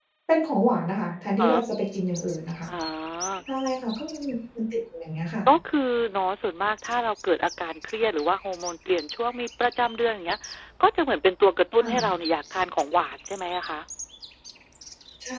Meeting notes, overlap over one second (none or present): none